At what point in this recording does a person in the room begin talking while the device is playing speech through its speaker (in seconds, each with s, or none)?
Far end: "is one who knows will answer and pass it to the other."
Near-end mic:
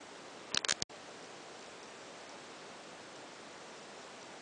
none